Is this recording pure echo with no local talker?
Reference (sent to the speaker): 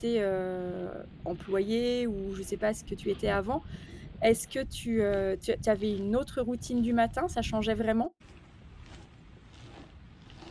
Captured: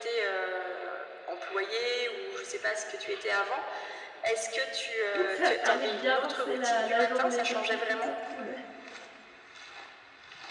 No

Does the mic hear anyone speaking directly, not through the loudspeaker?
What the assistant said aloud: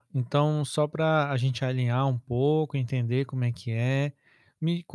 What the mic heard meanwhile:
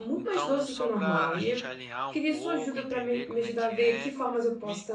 Yes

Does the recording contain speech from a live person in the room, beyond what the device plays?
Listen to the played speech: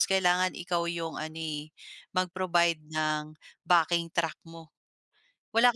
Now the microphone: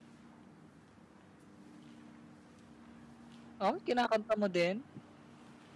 Yes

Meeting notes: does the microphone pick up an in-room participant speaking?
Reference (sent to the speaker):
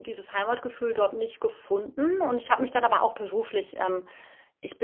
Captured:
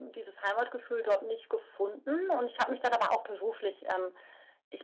No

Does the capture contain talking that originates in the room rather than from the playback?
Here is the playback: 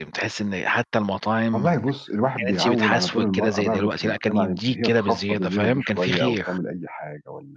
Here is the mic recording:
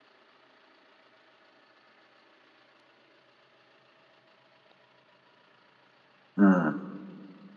Yes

